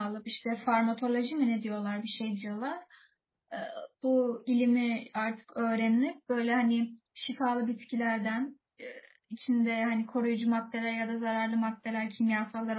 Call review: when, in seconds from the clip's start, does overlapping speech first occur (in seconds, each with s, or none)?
none